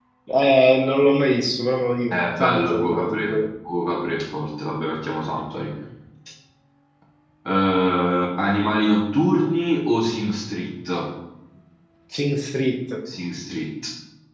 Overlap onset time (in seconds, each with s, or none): 2.1 s